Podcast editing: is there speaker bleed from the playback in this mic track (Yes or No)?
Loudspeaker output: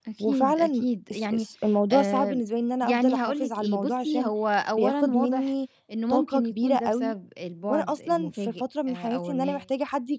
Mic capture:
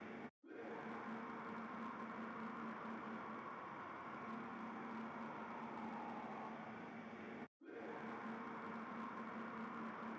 No